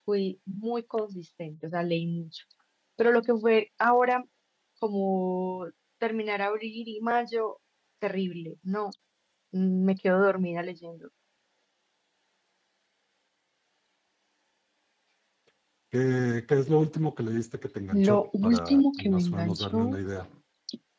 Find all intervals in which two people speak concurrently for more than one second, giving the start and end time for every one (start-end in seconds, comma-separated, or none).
17.9-20.0